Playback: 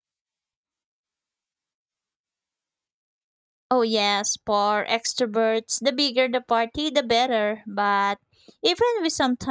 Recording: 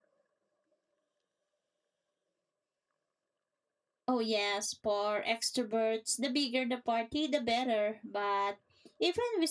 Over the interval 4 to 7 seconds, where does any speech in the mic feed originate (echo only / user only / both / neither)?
echo only